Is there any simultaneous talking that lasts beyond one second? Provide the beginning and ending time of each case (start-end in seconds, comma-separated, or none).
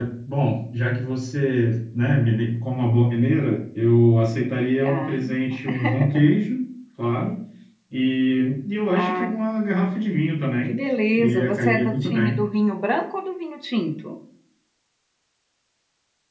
11.2-12.4